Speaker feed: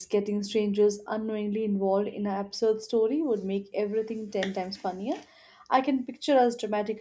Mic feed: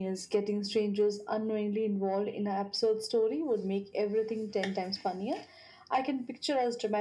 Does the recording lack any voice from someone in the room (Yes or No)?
Yes